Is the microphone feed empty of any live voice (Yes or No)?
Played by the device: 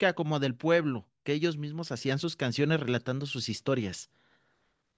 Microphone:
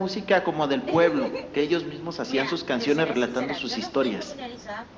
No